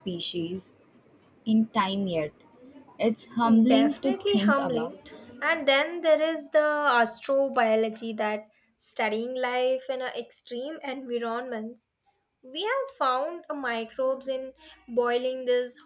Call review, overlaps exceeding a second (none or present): present